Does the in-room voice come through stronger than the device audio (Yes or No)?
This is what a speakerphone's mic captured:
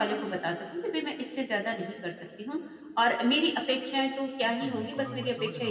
No